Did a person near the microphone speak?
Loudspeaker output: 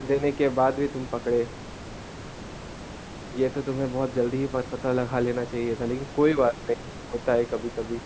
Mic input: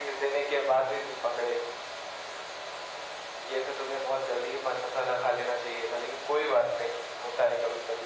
No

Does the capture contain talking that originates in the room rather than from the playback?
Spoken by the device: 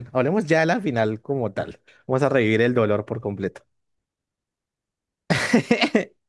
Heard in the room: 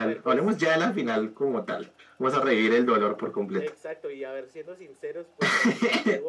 Yes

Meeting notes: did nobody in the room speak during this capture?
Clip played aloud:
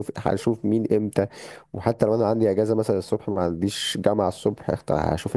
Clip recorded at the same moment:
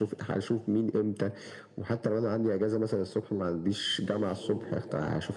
No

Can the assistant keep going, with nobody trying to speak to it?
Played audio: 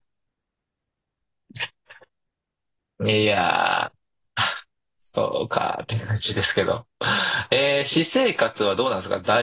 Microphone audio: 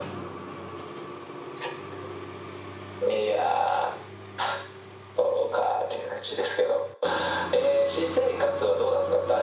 Yes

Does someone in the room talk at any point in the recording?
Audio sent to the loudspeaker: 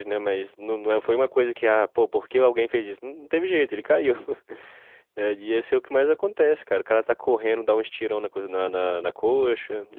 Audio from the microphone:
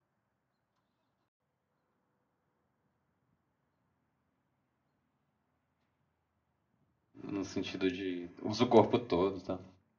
Yes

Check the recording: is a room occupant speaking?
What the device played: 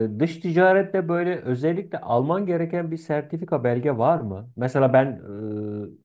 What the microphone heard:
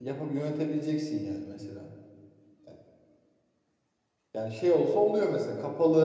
Yes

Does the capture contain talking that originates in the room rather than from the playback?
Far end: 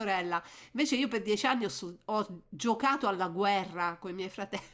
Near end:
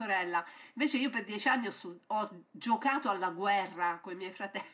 No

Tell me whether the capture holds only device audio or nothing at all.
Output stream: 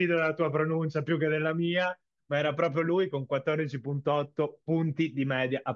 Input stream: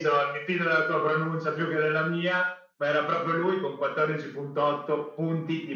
Yes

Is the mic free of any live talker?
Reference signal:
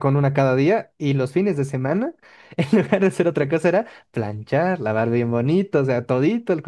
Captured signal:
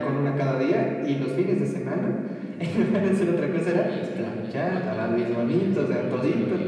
No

